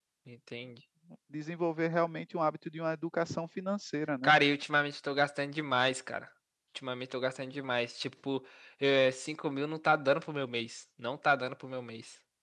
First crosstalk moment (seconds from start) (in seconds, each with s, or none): none